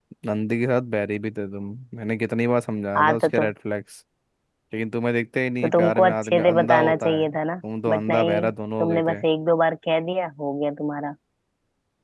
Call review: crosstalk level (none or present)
present